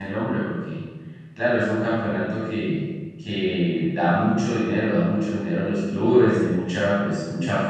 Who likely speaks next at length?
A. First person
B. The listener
A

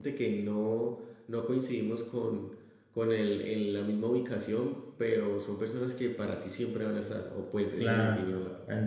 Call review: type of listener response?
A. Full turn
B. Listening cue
A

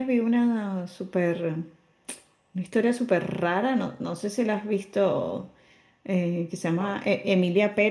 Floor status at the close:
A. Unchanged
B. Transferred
A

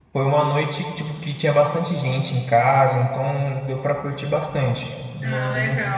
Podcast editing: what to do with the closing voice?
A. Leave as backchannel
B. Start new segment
B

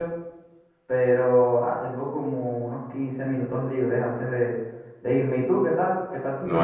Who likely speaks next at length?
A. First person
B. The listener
B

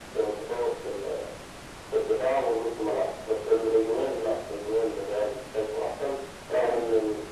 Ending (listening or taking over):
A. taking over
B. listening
B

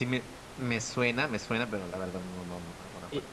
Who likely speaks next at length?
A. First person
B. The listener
B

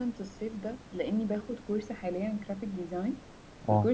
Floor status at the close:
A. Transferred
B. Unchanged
B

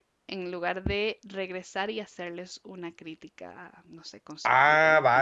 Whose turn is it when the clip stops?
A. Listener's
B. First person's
A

